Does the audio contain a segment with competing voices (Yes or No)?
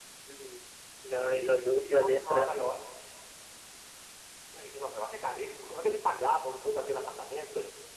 Yes